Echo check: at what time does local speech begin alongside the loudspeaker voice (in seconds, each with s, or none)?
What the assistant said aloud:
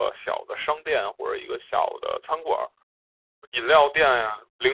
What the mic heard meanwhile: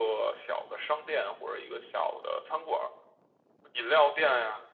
none